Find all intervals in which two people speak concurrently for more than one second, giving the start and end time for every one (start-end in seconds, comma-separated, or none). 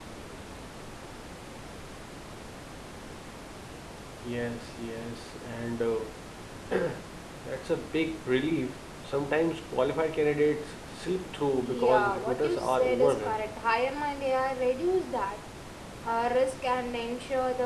11.6-13.4